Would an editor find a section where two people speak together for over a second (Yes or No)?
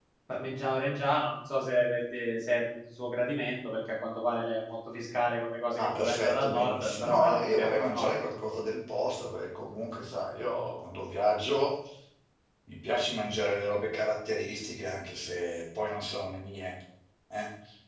Yes